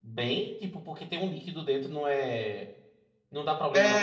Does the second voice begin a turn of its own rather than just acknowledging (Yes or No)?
Yes